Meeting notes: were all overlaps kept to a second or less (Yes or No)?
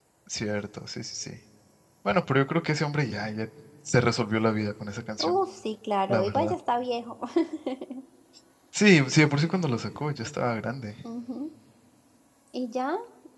Yes